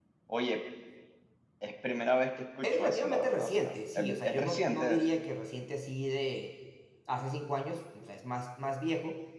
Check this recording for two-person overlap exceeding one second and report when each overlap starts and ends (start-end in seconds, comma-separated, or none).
2.6-5.0